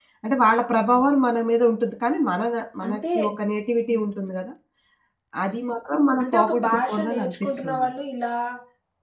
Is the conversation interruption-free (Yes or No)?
No